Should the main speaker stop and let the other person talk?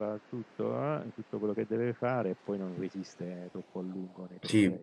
Yes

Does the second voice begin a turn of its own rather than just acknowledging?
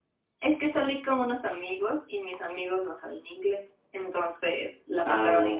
No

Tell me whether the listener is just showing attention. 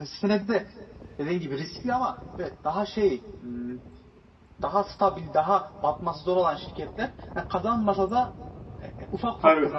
Yes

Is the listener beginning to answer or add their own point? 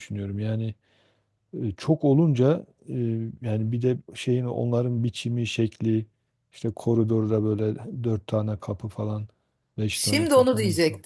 Yes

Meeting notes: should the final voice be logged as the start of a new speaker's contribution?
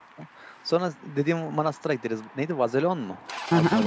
Yes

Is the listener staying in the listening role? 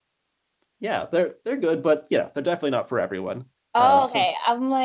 No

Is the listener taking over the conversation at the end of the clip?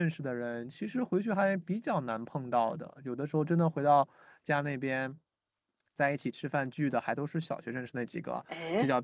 No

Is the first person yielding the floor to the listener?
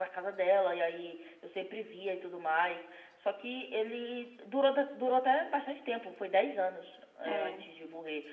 No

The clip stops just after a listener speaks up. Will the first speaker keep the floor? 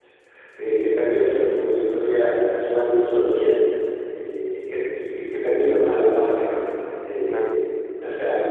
Yes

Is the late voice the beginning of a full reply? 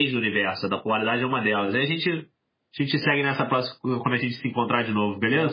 Yes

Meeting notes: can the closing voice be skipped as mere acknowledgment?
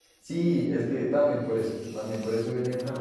Yes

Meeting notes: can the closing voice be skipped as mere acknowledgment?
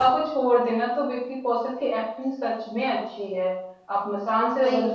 Yes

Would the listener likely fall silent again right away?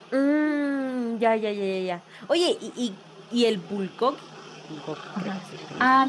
No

